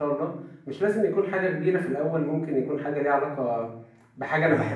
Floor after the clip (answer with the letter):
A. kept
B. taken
A